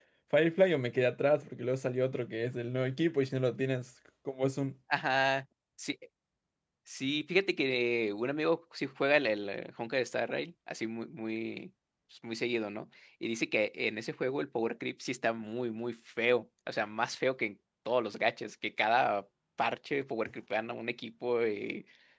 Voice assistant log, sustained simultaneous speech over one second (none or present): none